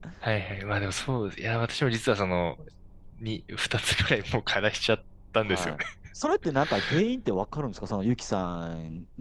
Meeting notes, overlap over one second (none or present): none